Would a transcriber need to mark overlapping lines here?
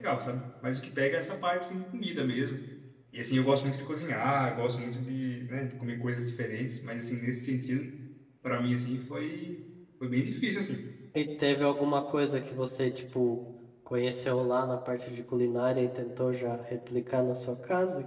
No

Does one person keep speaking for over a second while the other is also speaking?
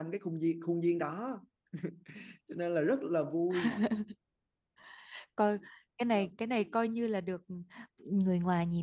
No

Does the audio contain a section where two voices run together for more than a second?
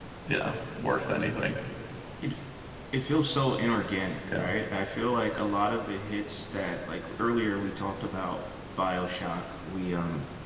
No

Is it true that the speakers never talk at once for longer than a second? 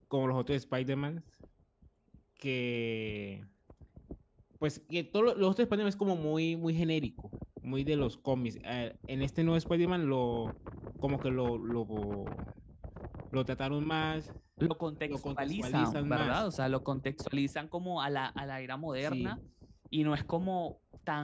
No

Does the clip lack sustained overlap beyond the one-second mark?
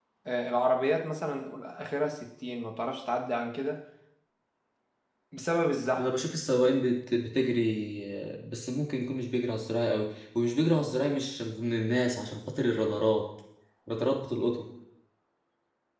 Yes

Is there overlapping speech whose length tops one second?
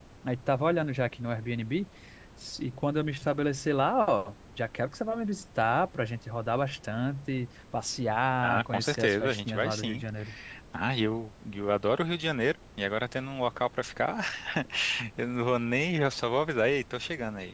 Yes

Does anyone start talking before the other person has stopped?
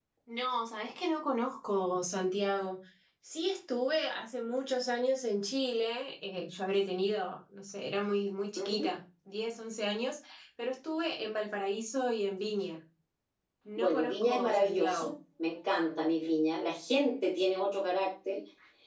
Yes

